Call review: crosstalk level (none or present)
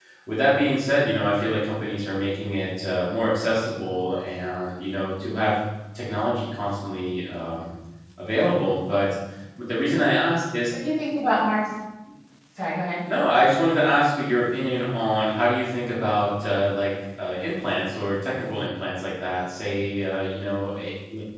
none